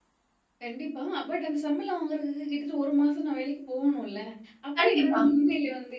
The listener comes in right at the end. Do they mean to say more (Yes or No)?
No